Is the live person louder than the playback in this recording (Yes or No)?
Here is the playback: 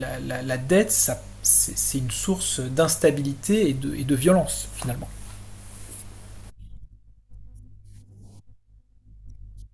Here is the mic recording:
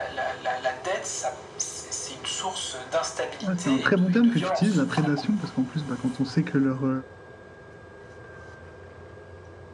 Yes